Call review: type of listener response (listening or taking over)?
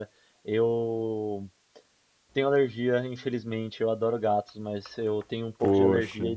listening